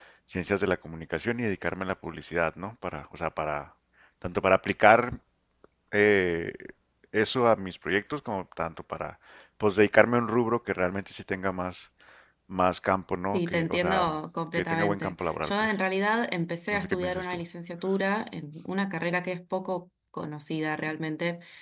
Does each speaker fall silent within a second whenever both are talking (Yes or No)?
No